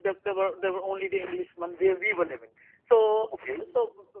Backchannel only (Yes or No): Yes